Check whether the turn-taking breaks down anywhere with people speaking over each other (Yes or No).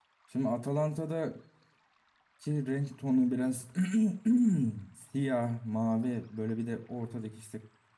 No